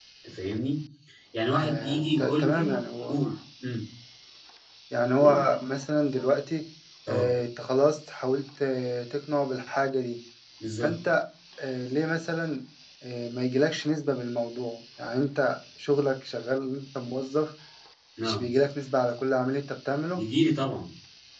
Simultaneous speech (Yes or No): Yes